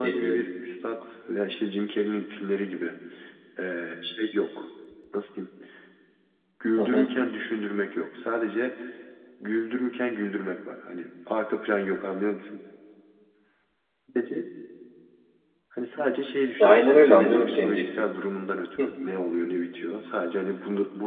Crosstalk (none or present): present